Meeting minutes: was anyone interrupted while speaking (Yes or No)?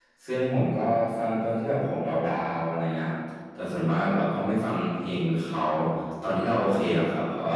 No